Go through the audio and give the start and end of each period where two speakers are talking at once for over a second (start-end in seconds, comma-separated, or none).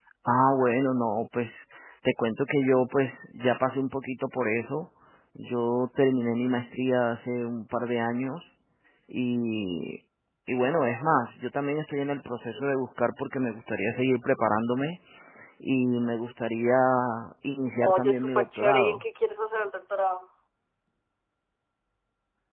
17.8-19.0